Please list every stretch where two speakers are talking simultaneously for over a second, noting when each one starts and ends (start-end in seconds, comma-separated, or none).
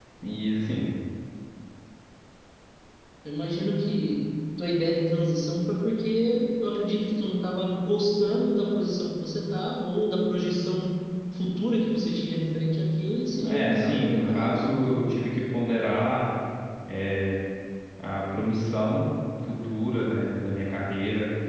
13.4-15.0